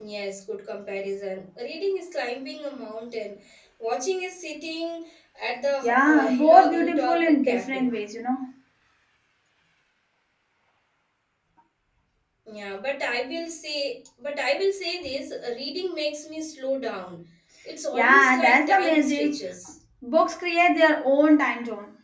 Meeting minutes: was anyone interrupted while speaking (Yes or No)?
Yes